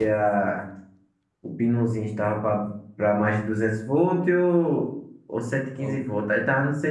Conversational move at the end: listening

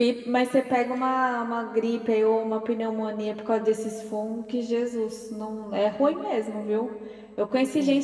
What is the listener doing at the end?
listening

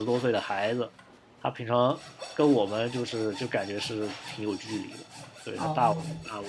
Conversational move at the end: listening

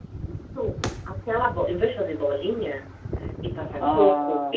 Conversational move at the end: listening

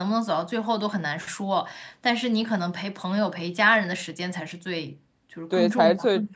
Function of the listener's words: taking over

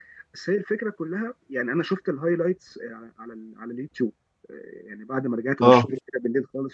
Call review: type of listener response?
listening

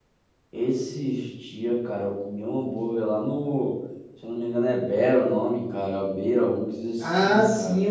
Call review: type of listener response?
taking over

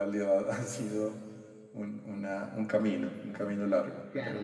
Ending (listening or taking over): taking over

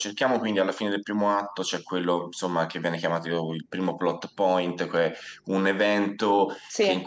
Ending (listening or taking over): listening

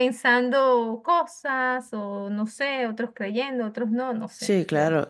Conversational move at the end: taking over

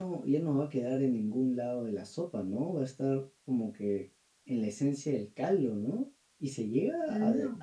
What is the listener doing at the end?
listening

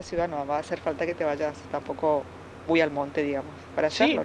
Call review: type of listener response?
taking over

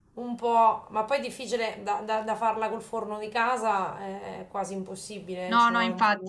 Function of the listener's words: taking over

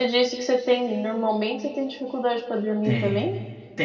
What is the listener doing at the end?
taking over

